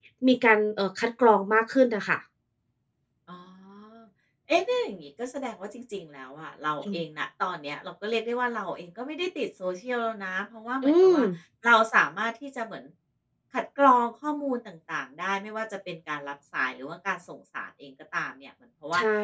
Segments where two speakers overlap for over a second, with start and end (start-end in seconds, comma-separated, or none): none